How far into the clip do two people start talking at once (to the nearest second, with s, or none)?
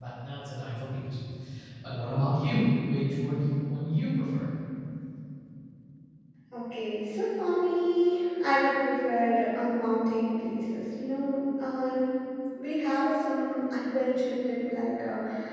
none